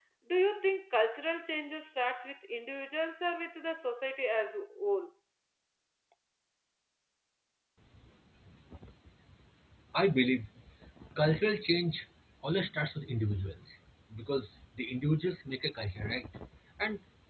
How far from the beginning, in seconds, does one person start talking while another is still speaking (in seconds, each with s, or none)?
none